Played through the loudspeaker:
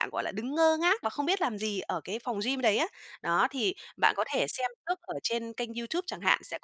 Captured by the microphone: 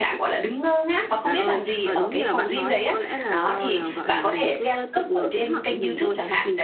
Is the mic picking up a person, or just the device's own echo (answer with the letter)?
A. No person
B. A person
B